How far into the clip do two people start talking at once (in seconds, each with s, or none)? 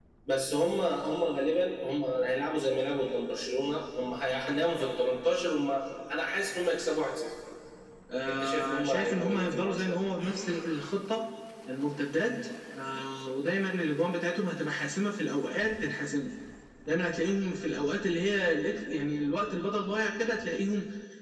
8.3 s